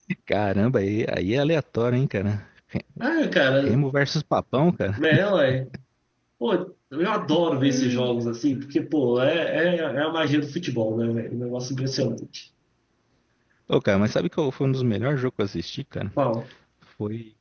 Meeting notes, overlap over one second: none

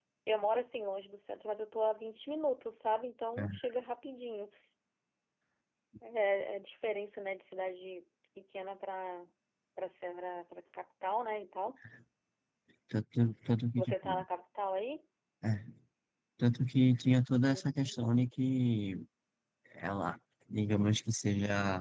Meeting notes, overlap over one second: none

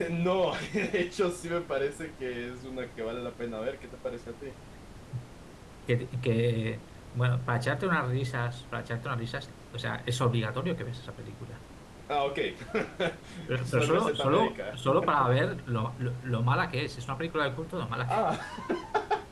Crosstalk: present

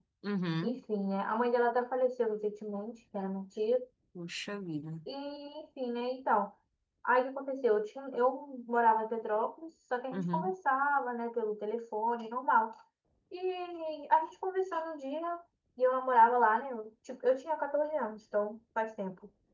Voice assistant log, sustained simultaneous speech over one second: none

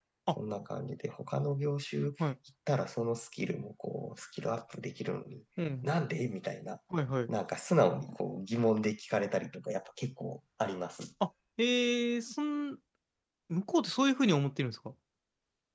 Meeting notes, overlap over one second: none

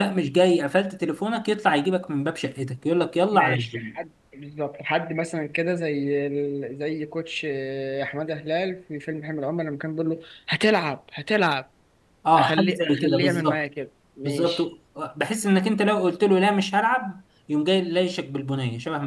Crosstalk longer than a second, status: present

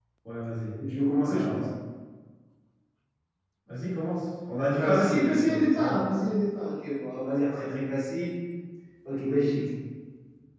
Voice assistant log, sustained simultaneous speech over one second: present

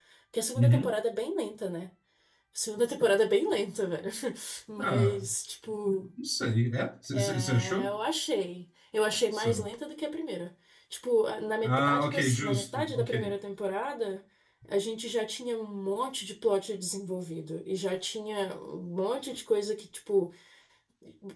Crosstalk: present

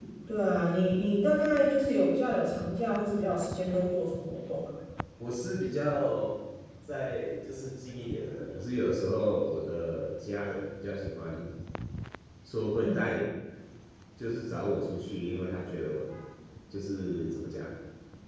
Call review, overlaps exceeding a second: none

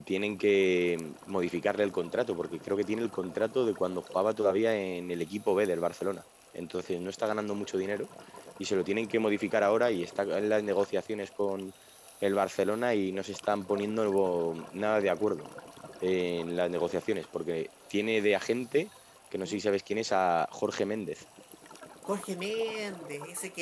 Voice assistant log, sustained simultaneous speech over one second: none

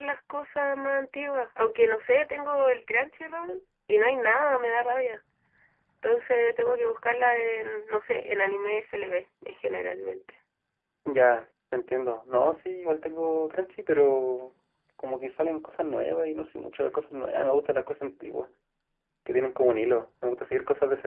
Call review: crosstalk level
none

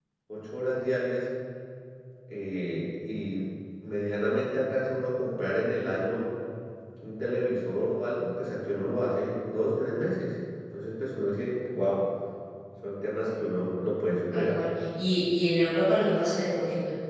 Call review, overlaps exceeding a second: none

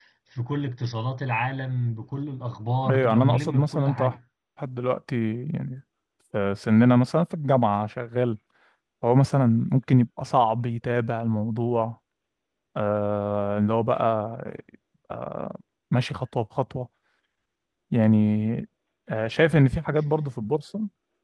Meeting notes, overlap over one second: present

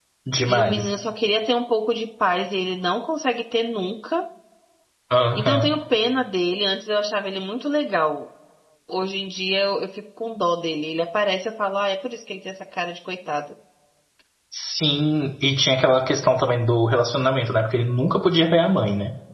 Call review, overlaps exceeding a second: none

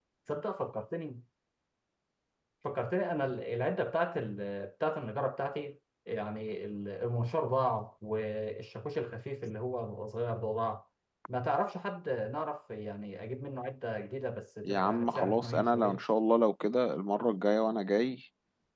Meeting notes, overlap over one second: present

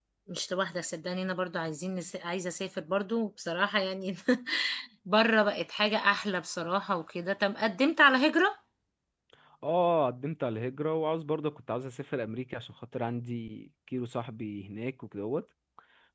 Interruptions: none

